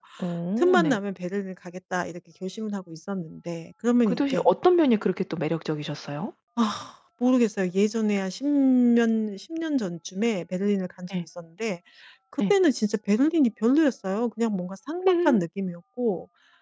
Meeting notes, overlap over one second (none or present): none